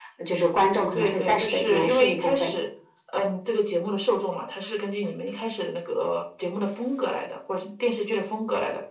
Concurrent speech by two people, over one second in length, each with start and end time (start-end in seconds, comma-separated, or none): 0.9-2.5